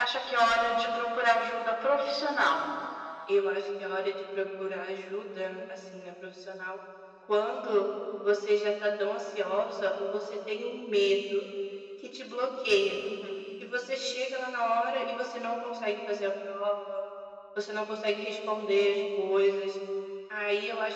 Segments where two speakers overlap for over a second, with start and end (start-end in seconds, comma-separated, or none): none